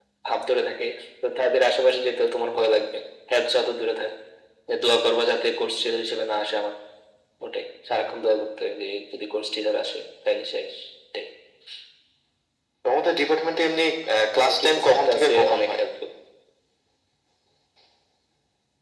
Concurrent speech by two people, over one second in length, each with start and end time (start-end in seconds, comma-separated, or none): 14.4-15.8